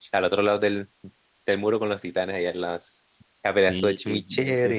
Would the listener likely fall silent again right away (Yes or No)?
No